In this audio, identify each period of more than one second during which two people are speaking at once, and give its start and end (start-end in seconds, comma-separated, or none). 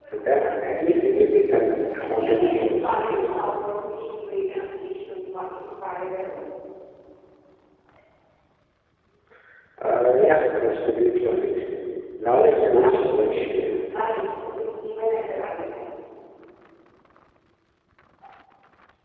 2.1-3.3, 12.3-13.8